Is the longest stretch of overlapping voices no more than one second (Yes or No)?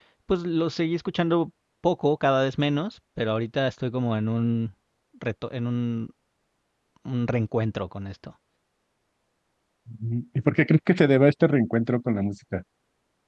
Yes